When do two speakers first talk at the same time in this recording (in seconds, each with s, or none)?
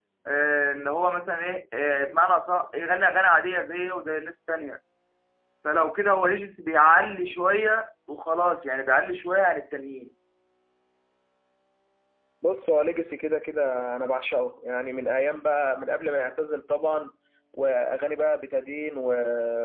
none